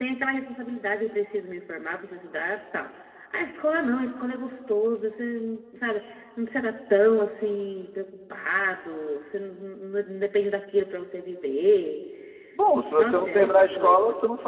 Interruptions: present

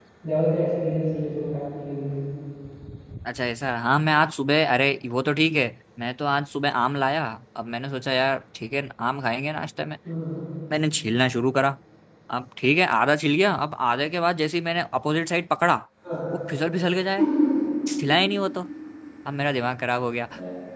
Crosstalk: none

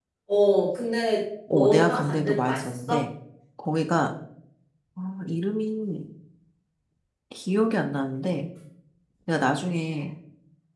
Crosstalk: present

